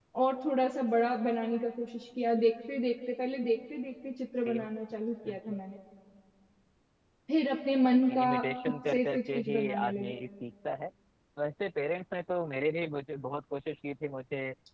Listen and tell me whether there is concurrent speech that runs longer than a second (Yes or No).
Yes